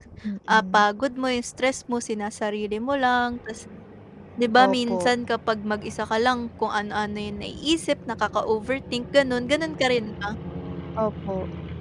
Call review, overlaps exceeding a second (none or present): none